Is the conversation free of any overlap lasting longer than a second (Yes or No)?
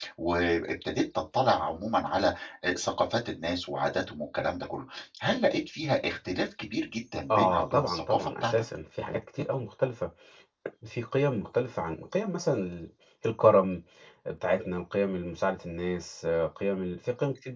No